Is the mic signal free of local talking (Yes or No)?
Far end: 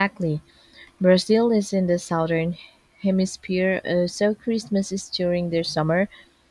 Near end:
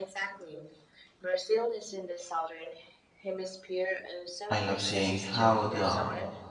No